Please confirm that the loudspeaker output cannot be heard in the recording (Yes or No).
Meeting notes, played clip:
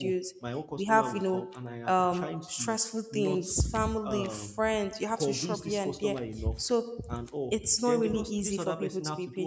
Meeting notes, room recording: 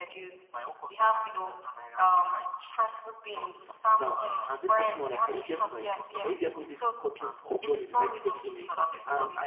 No